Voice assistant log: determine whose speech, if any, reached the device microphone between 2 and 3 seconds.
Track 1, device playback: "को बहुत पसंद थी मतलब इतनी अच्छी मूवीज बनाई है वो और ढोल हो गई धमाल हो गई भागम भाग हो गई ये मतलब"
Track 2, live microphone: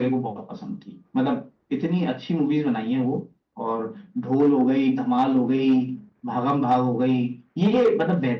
echo only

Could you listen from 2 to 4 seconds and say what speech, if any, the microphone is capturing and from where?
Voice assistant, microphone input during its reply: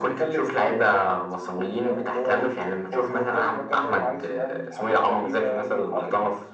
echo only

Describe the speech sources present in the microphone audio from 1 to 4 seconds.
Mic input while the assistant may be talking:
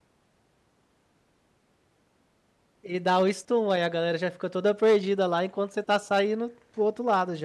user only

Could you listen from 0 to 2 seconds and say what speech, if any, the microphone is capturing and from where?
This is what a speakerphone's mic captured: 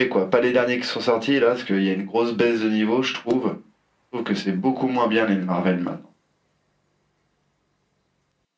echo only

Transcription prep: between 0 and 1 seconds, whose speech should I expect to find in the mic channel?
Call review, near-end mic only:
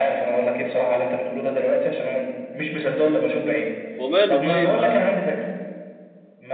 echo only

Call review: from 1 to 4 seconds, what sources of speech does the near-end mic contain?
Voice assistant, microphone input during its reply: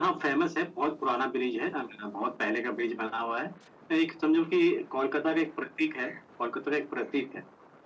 echo only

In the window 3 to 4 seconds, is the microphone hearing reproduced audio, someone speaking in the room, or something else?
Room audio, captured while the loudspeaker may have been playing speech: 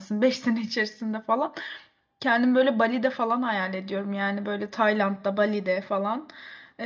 user only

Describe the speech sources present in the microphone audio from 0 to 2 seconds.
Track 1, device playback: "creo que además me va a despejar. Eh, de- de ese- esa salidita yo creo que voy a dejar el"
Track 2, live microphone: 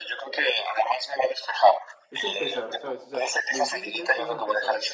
echo only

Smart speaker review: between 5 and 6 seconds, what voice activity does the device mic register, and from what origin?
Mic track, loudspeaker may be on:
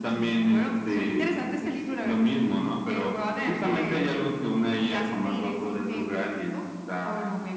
echo only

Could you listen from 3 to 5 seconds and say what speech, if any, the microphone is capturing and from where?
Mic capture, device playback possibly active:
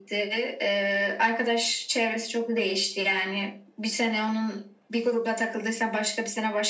echo only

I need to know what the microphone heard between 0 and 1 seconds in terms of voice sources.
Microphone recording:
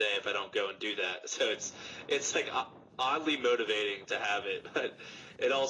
echo only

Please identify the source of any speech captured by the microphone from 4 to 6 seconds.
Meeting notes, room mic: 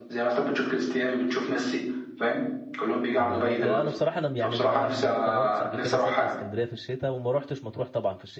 both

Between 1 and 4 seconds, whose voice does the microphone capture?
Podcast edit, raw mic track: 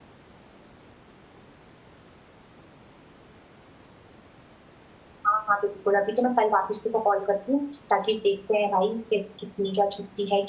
neither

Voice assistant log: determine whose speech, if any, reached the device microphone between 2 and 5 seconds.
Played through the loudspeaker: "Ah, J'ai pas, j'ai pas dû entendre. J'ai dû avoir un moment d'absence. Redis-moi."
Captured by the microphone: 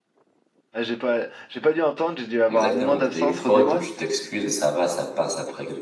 both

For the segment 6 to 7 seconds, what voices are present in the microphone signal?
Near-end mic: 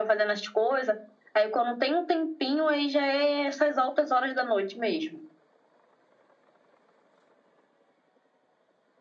neither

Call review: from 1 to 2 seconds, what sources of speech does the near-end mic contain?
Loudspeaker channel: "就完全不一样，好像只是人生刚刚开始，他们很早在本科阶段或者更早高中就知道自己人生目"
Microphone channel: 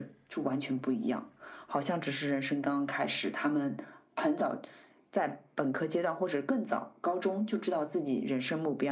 echo only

